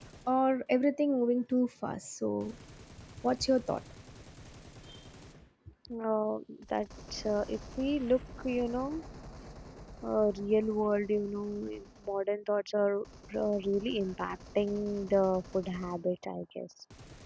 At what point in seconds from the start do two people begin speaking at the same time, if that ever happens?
none

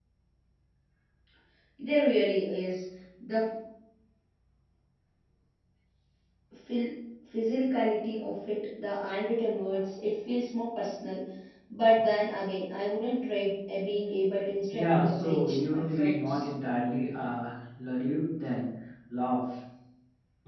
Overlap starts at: 14.7 s

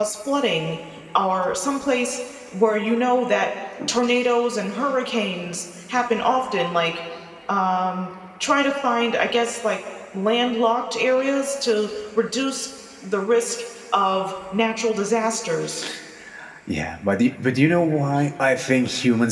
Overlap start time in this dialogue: none

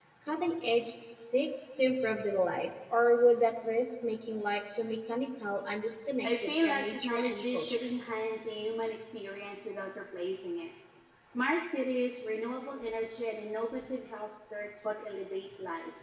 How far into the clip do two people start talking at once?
6.2 s

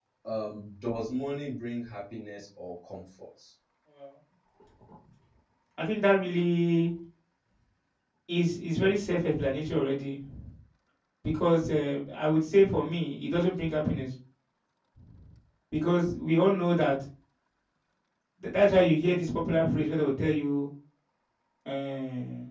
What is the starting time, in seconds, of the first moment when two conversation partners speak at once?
none

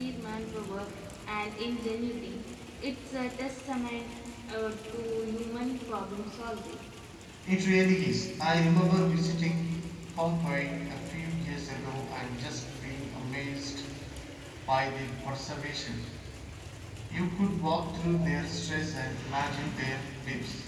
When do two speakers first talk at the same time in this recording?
none

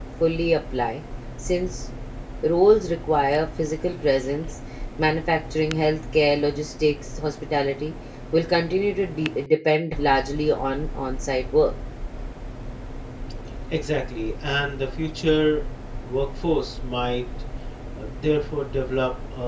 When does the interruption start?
none

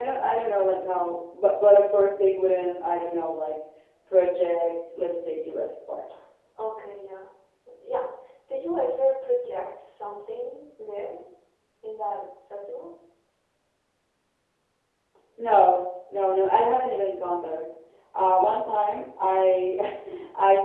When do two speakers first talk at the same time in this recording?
none

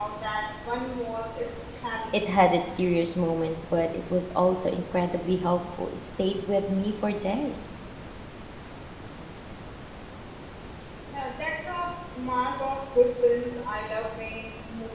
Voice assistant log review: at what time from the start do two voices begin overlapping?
none

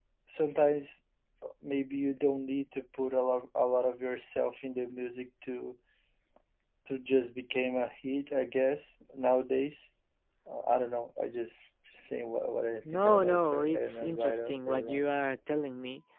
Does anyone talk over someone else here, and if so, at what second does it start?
12.8 s

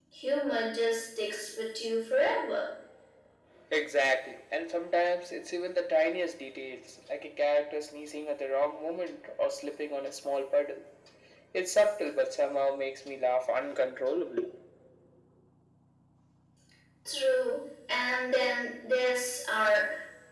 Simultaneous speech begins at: none

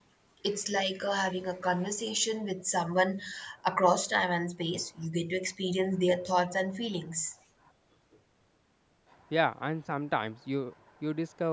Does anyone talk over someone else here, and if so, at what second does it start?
none

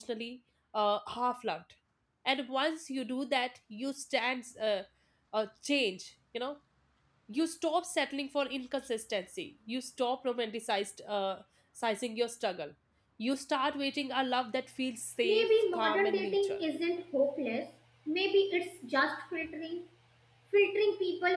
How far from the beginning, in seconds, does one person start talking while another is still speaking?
15.2 s

